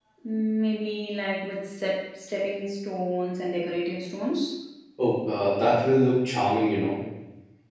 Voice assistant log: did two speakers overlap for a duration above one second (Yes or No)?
No